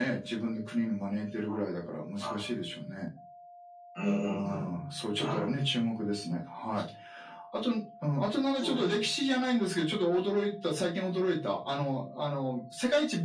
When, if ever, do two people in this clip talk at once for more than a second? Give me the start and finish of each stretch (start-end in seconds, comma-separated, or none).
none